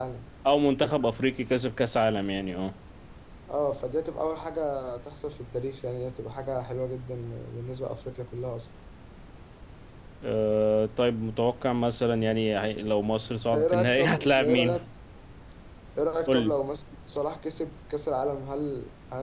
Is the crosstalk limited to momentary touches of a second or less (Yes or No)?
No